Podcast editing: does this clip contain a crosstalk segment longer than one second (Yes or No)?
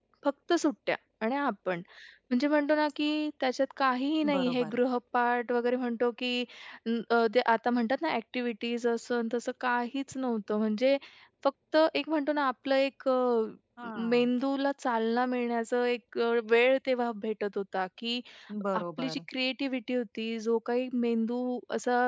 No